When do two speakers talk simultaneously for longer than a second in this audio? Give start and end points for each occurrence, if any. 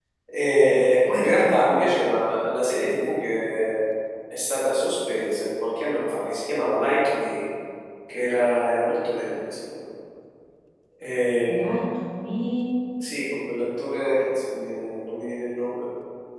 none

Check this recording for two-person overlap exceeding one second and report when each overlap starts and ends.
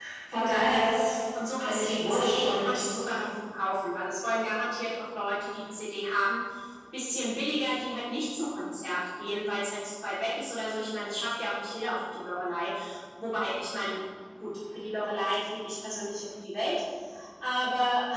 1.6-2.8

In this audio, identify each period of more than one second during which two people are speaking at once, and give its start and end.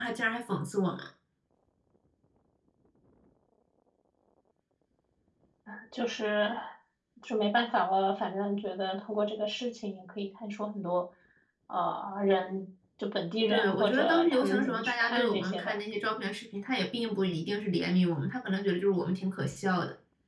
13.5-15.8

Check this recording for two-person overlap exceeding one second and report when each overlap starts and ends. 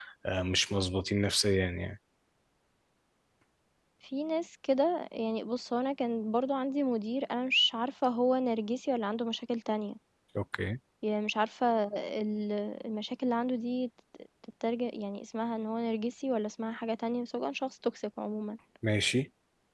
none

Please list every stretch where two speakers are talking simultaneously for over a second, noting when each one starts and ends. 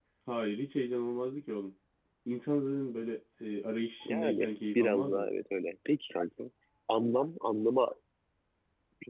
4.1-5.3

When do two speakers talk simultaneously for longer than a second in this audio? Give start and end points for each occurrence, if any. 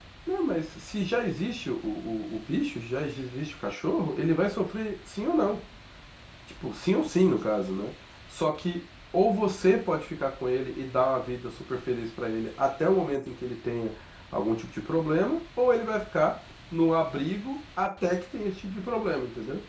none

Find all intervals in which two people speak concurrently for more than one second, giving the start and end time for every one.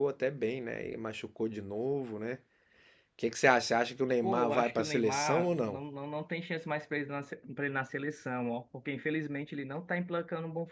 4.2-5.8

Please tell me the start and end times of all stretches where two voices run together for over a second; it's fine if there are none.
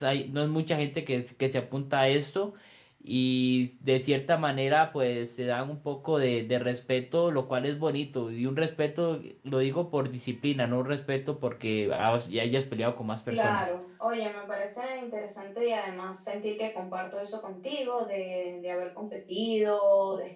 none

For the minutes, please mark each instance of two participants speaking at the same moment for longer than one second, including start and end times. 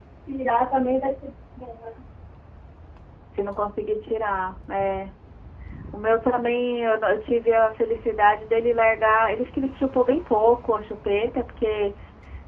none

